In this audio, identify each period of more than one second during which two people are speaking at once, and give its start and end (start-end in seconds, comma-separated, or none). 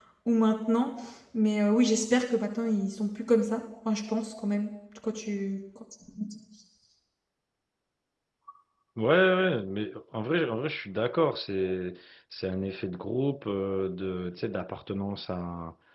none